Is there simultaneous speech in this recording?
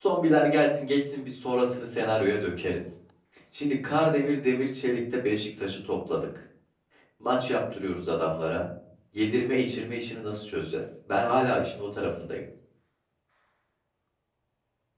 No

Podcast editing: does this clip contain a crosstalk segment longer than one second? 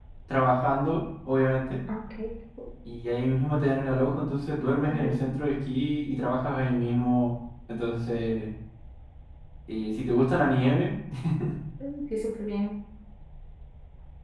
No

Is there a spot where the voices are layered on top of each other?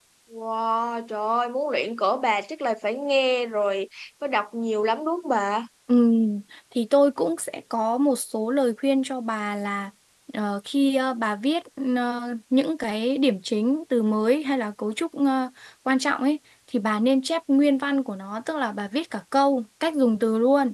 No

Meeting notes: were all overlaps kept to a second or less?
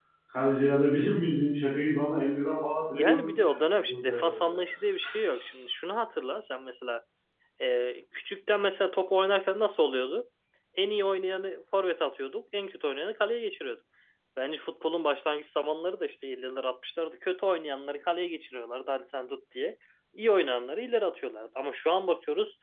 No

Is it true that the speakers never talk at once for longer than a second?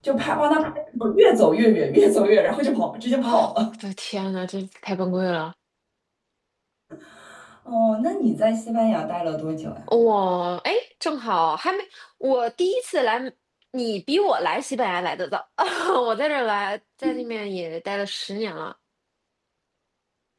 Yes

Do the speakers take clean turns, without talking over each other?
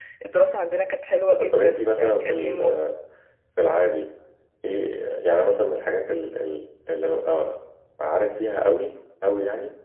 No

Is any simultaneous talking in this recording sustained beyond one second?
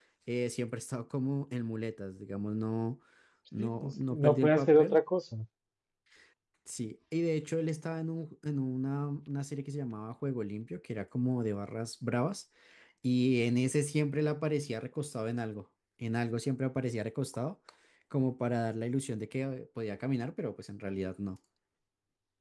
Yes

